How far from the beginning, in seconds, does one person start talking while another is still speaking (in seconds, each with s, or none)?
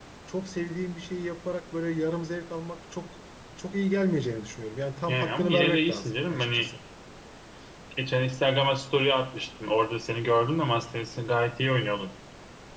5.1 s